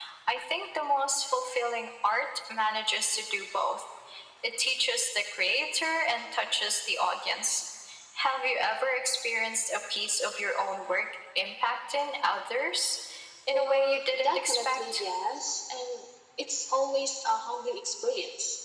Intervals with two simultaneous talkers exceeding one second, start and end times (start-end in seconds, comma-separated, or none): 13.5-15.0